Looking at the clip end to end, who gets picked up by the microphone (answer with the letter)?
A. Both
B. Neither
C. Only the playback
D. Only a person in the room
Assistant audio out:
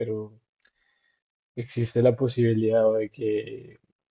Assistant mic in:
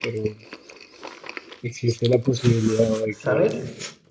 A